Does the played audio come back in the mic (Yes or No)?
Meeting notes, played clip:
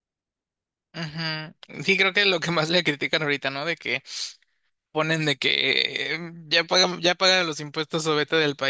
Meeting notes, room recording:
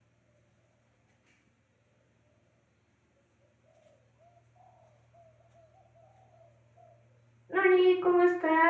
No